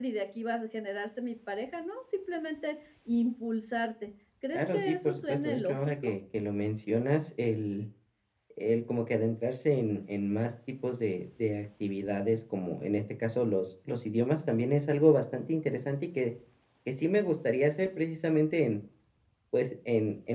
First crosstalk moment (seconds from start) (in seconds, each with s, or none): 4.5 s